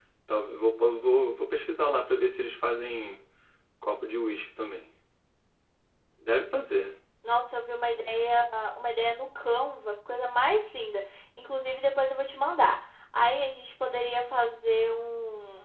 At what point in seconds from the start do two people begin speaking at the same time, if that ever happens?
none

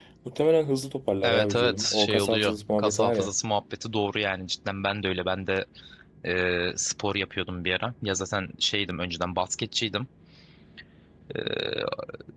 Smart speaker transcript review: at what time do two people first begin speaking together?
1 s

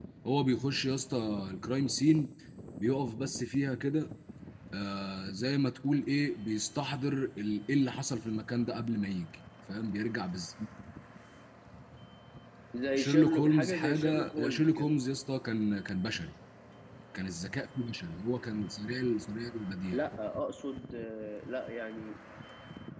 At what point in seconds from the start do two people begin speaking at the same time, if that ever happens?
13 s

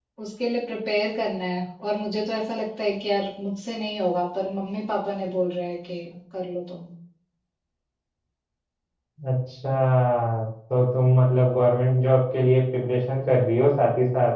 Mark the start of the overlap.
none

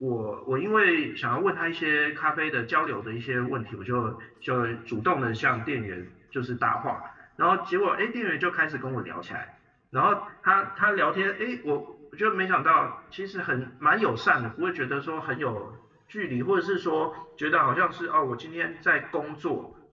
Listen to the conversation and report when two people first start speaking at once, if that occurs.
none

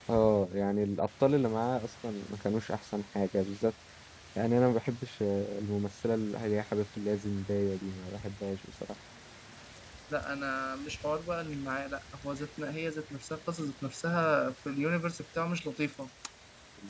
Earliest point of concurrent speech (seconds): none

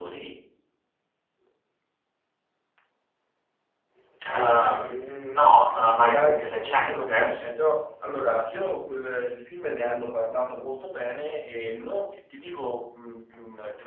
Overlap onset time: 6 s

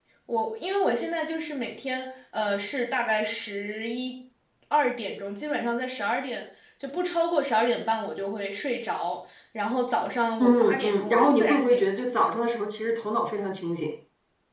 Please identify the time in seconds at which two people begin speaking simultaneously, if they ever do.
10 s

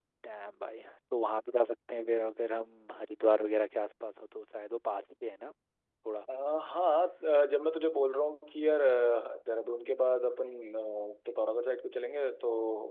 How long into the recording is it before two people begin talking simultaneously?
none

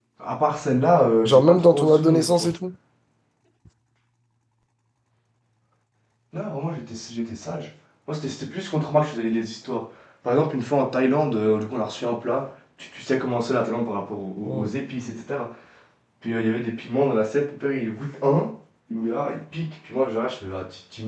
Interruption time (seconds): 1 s

